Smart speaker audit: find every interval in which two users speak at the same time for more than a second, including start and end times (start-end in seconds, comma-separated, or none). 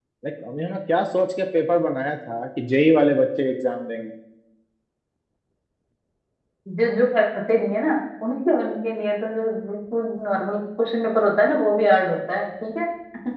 none